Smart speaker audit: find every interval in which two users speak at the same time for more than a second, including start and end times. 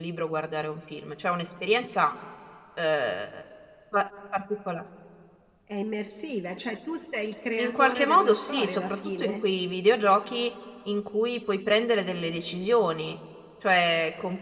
7.6-9.4

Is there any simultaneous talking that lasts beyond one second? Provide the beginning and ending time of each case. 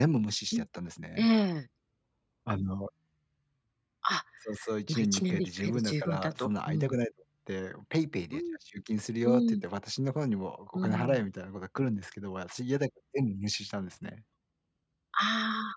4.9-6.9

